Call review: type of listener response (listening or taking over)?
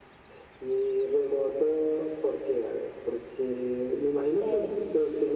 listening